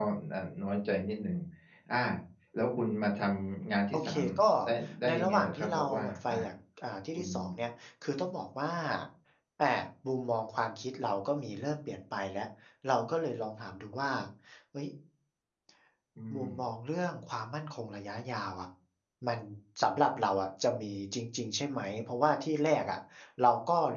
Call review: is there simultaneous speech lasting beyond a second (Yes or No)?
Yes